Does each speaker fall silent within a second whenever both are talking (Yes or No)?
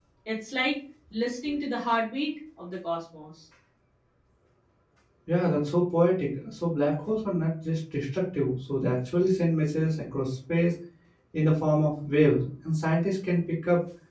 Yes